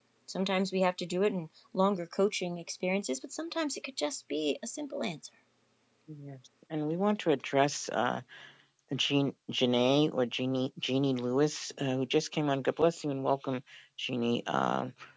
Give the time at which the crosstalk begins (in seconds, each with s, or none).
none